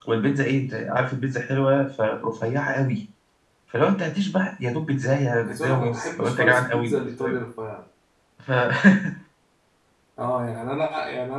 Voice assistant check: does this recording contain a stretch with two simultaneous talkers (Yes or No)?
Yes